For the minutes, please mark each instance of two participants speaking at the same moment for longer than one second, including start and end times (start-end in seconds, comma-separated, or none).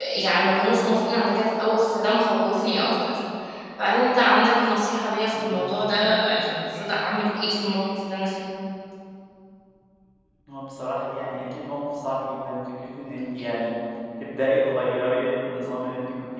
none